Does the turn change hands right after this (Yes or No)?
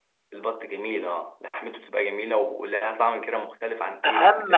Yes